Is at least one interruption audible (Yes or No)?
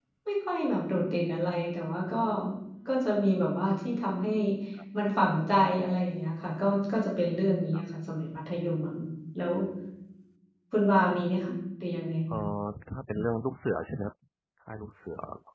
No